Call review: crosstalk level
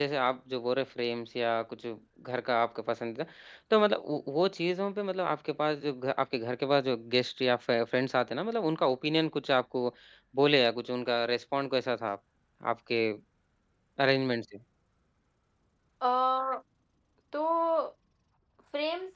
none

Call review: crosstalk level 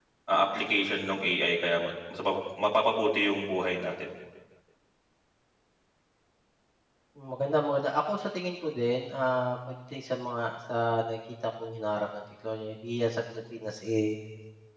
none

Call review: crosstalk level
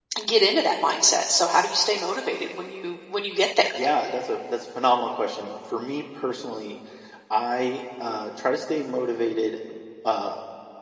none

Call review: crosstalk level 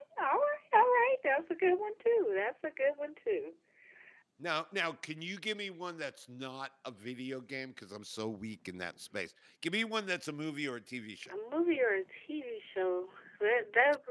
none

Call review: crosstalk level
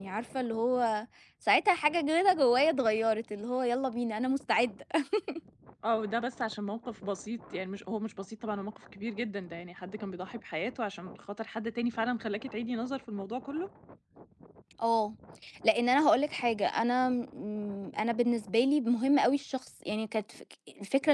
none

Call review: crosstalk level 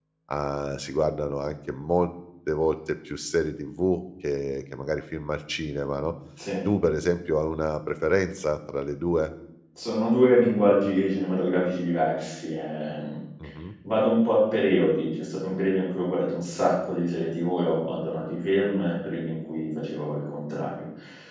none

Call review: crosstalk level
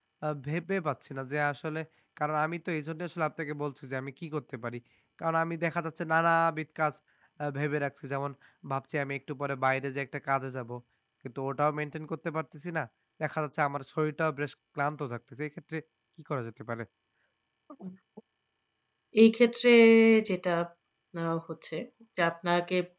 none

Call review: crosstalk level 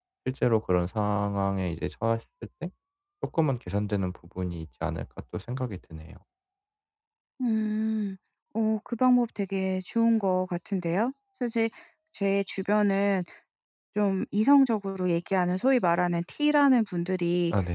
none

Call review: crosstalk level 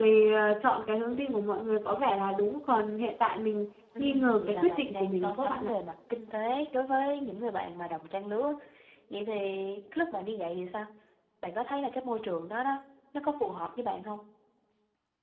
present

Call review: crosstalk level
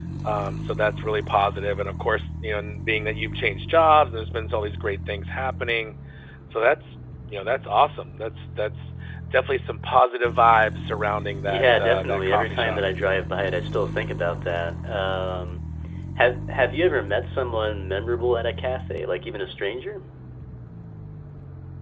present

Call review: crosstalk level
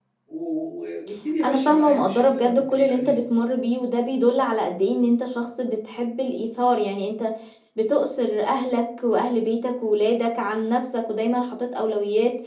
present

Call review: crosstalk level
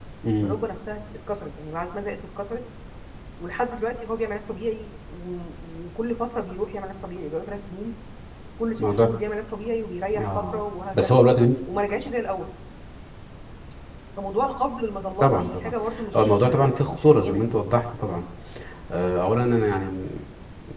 present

